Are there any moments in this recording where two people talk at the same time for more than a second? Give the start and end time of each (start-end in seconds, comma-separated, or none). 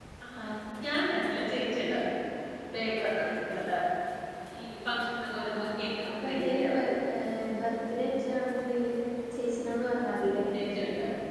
5.4-6.7